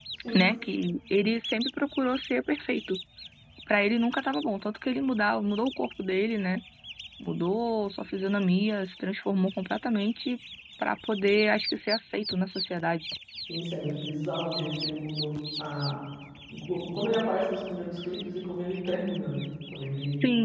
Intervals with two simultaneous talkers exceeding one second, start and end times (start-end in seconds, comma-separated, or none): none